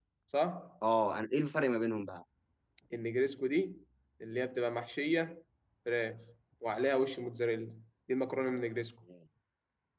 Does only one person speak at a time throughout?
Yes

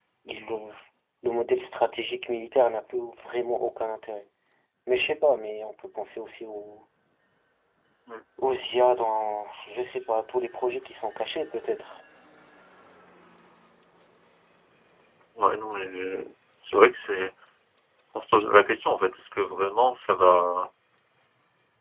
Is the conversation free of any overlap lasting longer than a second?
Yes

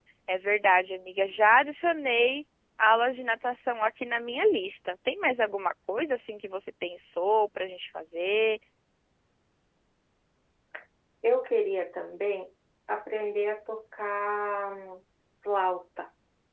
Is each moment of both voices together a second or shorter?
Yes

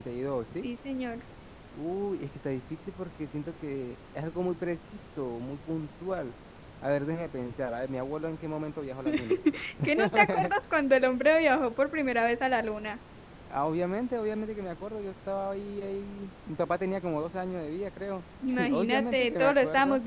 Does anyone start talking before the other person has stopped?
Yes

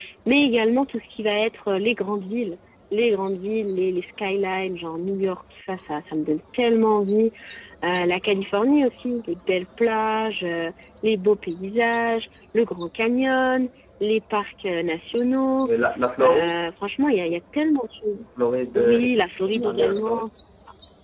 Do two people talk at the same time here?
Yes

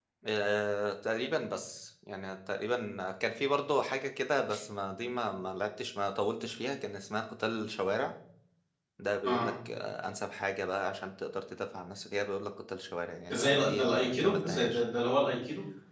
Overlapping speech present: Yes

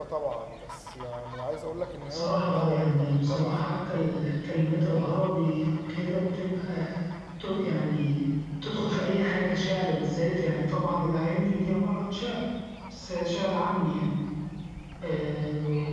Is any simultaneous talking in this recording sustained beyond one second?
Yes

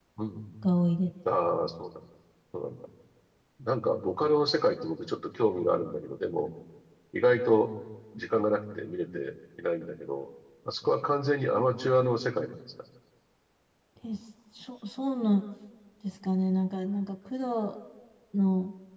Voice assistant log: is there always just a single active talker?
Yes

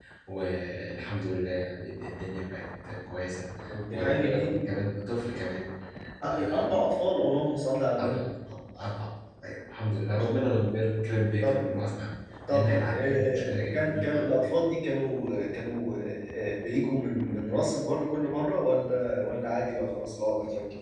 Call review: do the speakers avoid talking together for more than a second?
No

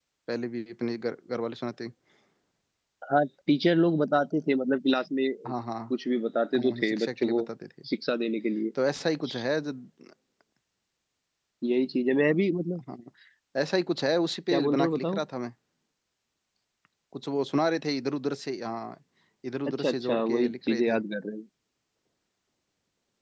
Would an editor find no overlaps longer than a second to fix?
No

